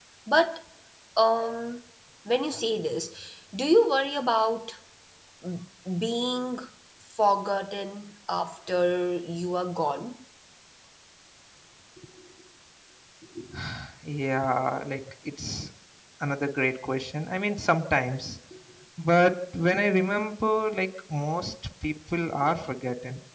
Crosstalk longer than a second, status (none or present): none